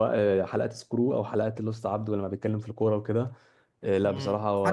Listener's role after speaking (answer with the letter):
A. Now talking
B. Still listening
A